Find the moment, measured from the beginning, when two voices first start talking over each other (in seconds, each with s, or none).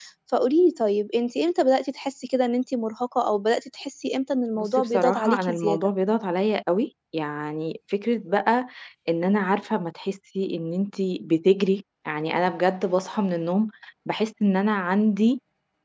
4.6 s